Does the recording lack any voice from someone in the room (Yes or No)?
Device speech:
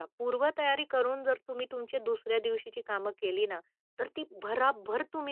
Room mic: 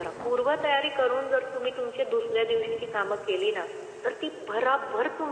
Yes